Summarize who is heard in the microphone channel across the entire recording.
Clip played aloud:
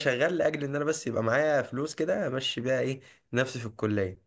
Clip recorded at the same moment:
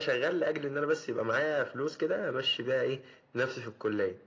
echo only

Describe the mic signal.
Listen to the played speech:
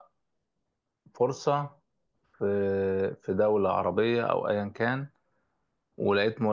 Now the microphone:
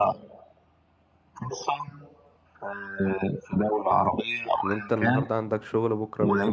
both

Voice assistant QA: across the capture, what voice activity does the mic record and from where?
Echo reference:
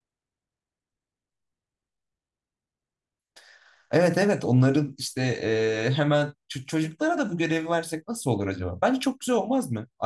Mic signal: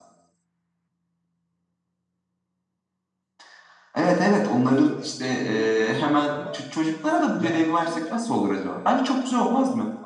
both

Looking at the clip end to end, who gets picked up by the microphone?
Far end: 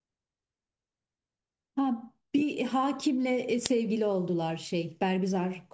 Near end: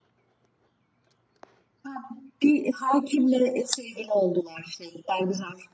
echo only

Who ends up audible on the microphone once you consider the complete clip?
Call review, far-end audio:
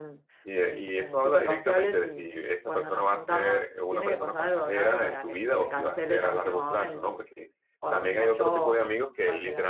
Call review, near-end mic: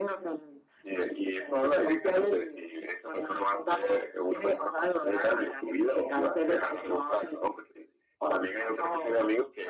echo only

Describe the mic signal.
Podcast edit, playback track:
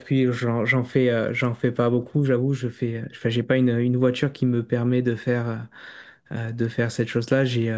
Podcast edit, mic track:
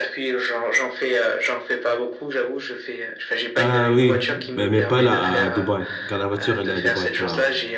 both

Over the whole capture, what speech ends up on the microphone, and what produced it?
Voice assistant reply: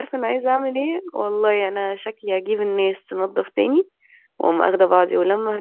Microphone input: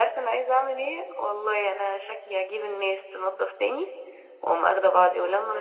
echo only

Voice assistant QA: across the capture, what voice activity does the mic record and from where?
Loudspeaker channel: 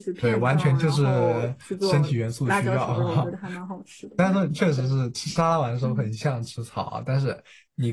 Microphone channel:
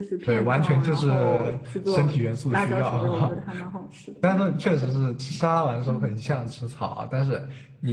echo only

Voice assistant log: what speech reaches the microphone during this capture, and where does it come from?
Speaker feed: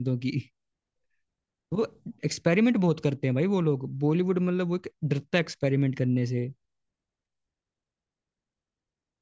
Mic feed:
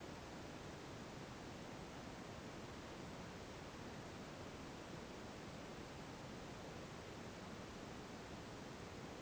neither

